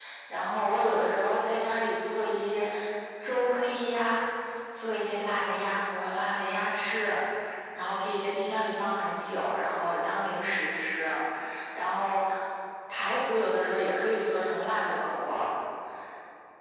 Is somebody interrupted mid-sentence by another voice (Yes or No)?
No